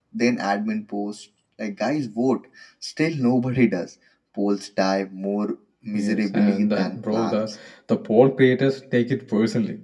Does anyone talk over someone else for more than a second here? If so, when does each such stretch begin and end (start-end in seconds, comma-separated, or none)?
5.9-7.5